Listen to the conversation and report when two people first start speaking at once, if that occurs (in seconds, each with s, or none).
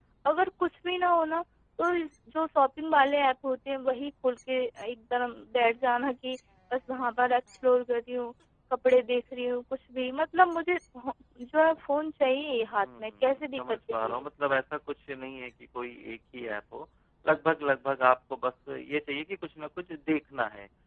12.7 s